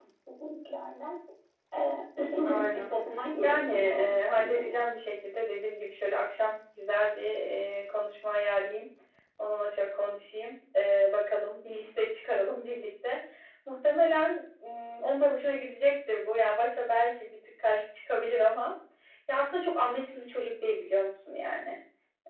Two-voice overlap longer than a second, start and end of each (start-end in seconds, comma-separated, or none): 3.4-4.8